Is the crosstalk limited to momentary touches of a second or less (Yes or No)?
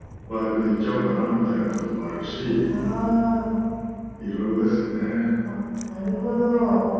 Yes